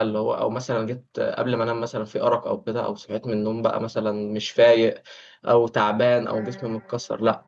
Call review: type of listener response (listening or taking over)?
listening